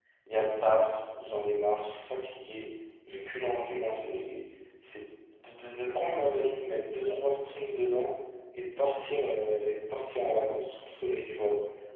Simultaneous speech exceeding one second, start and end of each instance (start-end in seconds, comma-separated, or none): none